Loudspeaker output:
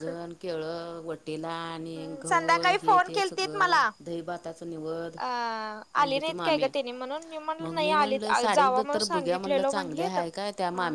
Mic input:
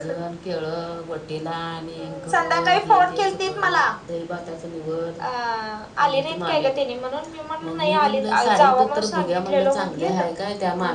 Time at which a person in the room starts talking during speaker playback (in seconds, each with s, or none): none